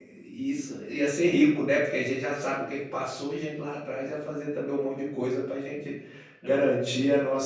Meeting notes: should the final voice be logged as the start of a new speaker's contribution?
No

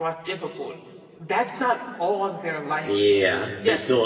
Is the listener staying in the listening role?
No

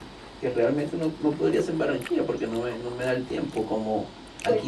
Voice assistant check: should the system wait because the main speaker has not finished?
Yes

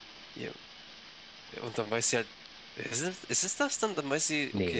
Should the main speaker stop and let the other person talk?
Yes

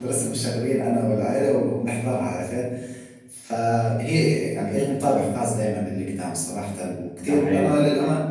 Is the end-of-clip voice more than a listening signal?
No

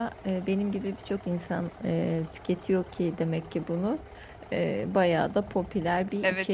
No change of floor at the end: No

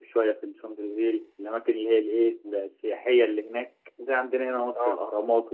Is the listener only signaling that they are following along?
Yes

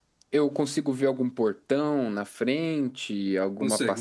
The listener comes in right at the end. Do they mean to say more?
Yes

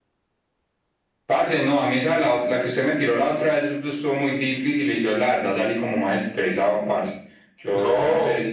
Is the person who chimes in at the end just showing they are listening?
No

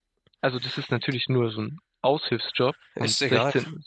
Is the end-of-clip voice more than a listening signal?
No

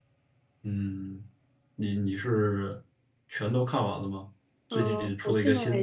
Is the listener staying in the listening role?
No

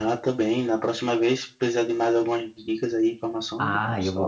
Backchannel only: No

